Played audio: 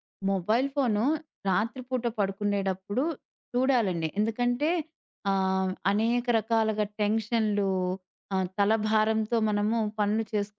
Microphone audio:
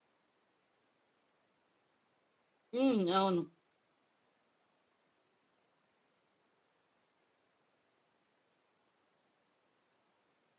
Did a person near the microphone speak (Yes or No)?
Yes